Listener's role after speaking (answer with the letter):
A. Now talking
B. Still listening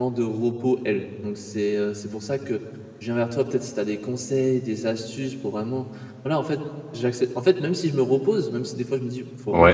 B